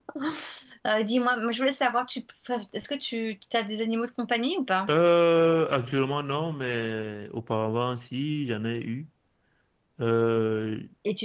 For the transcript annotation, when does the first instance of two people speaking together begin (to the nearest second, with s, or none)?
none